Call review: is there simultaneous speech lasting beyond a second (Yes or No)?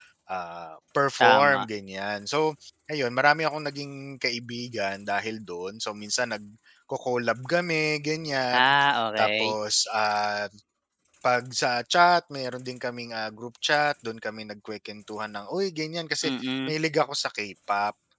No